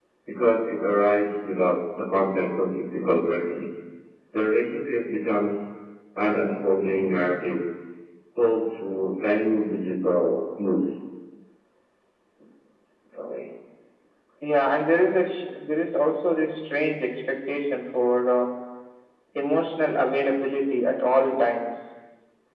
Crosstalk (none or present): none